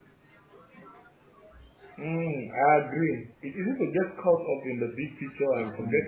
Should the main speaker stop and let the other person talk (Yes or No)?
No